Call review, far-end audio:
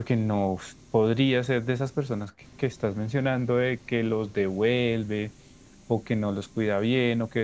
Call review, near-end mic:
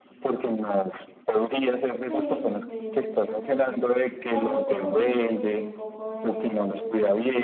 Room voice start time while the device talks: 1.9 s

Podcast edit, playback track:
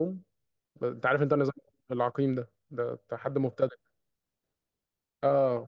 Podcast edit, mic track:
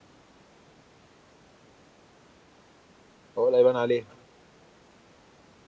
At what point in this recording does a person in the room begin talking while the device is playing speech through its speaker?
3.4 s

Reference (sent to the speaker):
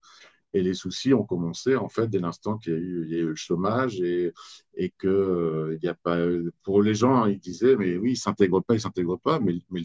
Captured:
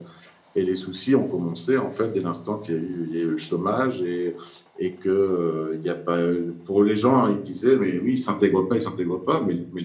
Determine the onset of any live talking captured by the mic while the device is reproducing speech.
none

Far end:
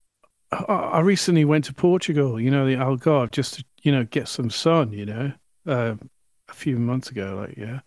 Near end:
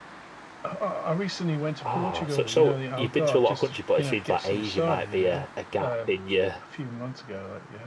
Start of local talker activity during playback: 1.8 s

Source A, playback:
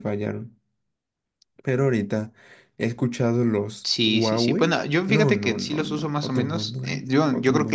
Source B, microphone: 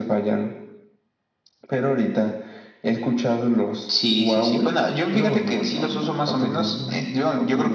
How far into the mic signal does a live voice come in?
none

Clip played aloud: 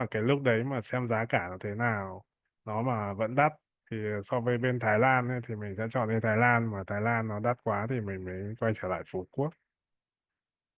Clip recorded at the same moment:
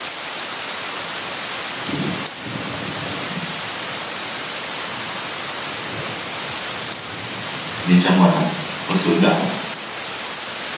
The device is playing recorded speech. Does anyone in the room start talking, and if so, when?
7.8 s

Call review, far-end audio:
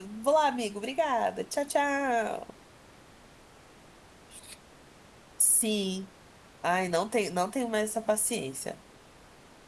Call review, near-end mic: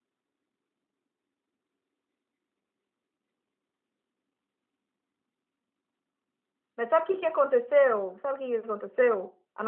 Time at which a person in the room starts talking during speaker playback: 6.7 s

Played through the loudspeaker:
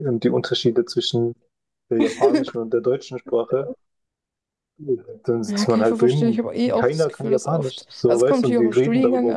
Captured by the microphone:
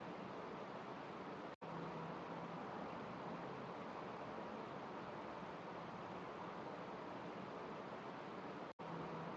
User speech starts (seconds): none

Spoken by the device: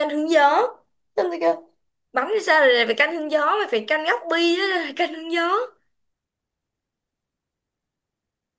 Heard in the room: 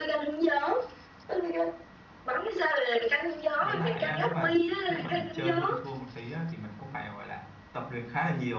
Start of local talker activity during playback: 3.6 s

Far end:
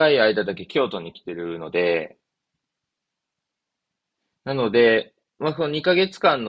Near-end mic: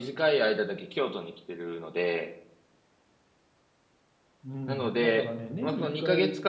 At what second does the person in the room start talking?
4.4 s

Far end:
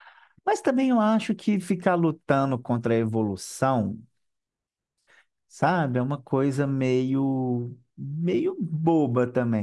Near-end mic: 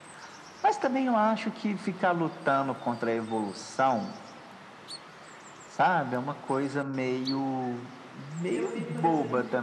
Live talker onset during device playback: 8.5 s

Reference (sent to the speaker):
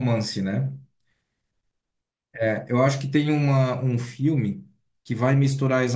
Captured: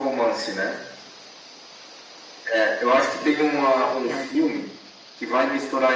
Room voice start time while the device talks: 3.2 s

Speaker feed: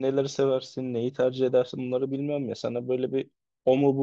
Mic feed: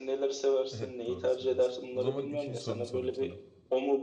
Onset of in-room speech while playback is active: 0.7 s

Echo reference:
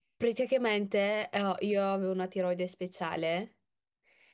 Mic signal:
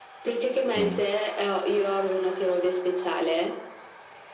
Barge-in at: 0.7 s

